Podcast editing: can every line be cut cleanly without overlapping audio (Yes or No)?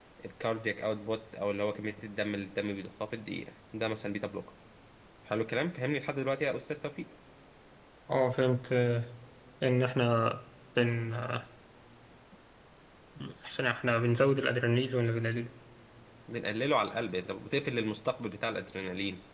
Yes